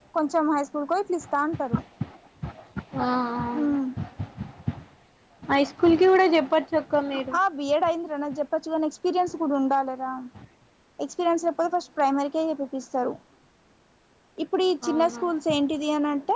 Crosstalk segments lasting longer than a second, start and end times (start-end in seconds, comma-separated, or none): none